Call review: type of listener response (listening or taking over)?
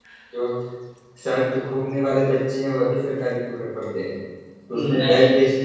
listening